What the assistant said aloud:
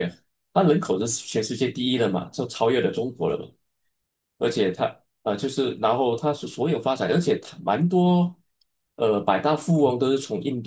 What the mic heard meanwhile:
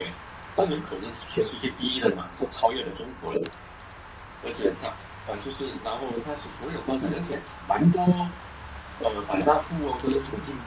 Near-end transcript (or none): none